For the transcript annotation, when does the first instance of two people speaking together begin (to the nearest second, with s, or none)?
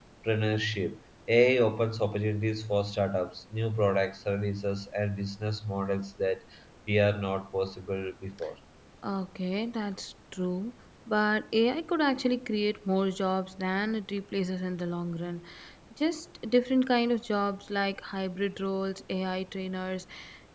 none